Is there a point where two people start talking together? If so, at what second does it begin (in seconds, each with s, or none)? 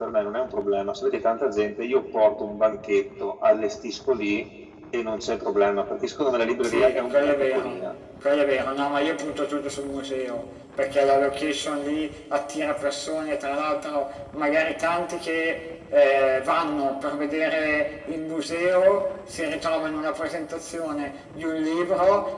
6.6 s